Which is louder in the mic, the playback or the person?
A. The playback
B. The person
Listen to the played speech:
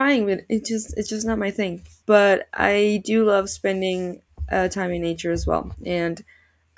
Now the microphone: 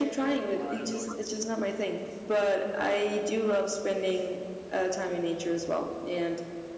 A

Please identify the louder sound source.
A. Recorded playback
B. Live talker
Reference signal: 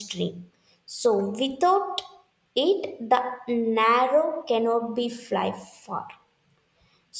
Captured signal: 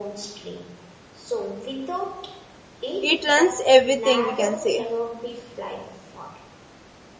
B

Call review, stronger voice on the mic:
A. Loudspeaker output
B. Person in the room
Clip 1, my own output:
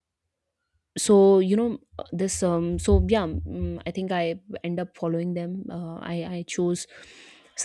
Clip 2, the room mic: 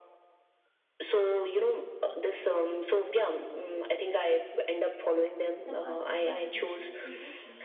A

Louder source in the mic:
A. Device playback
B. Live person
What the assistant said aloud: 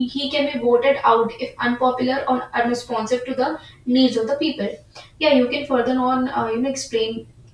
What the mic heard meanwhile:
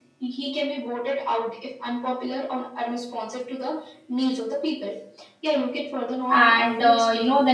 B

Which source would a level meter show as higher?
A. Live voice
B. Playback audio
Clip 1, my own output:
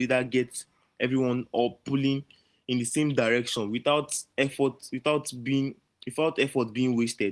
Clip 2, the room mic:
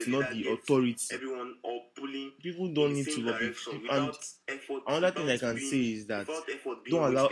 A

